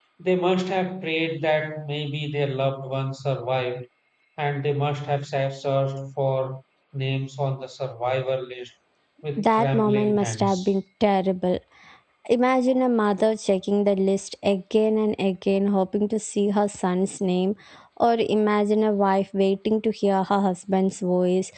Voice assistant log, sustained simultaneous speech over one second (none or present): present